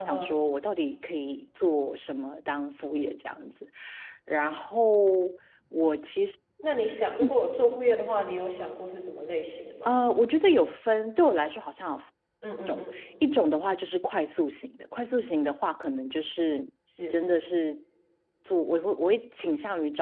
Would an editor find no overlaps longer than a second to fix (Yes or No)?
Yes